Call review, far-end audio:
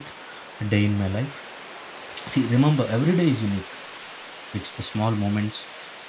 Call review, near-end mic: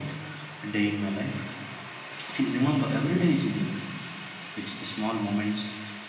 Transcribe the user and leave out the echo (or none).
none